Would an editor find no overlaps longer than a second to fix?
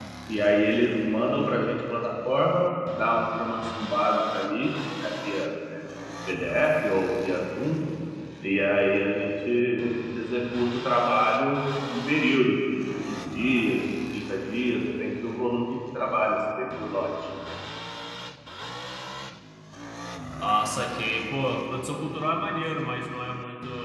Yes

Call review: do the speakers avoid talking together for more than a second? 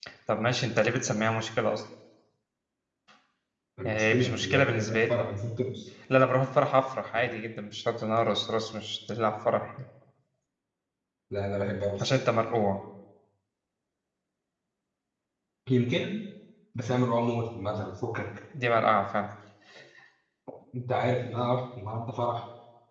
No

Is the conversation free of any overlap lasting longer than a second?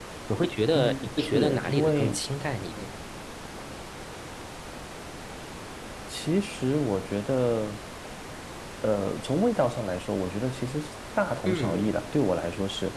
No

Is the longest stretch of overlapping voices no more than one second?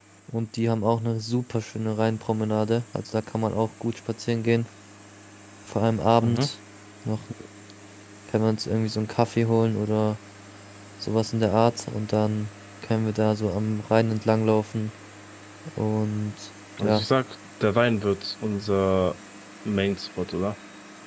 Yes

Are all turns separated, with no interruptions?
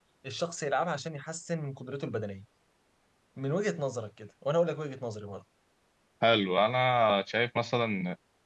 Yes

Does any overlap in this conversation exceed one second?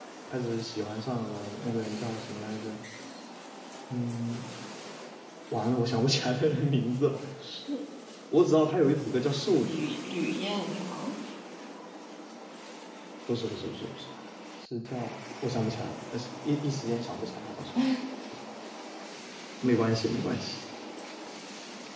No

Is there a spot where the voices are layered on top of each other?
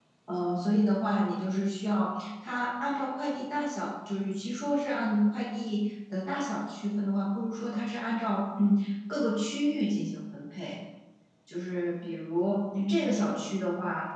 No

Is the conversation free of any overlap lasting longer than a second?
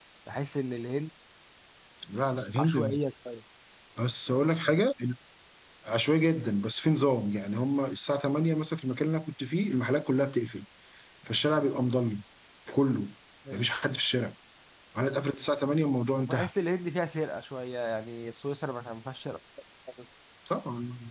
Yes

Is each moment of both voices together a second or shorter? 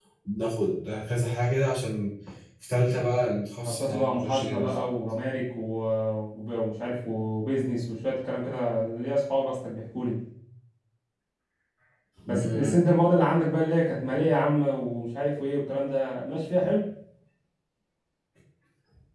No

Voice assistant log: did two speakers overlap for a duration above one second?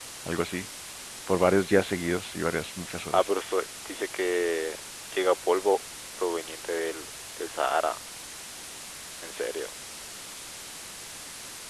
No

